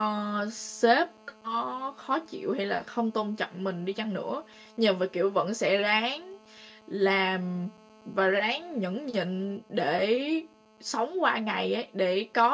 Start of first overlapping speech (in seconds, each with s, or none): none